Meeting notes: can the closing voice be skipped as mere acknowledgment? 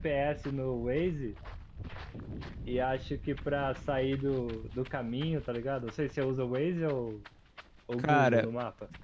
No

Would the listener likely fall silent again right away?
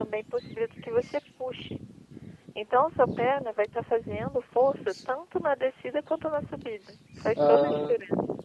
No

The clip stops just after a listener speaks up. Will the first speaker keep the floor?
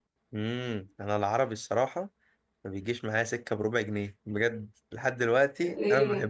No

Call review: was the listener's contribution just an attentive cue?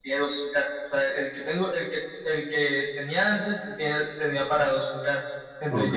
Yes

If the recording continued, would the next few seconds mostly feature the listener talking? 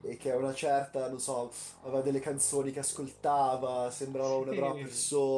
No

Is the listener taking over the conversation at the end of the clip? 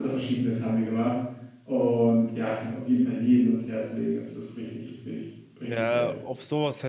Yes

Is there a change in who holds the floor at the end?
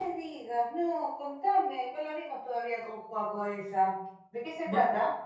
Yes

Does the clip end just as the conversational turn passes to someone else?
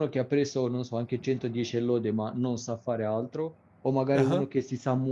No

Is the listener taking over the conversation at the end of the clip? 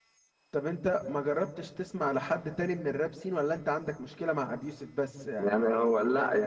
Yes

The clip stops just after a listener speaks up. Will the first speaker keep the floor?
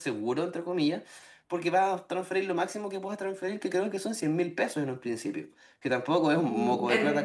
No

